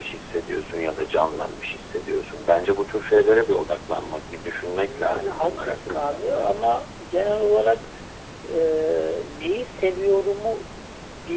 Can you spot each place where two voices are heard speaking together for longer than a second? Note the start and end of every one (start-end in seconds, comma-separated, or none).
4.8-6.2